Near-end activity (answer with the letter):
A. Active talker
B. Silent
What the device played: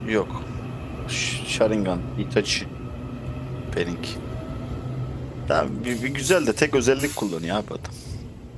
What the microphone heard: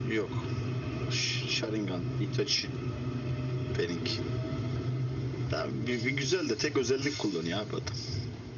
B